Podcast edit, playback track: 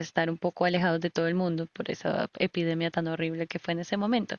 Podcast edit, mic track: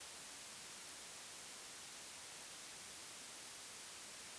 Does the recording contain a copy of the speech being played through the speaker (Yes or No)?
No